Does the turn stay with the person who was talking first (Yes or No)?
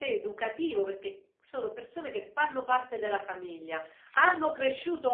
Yes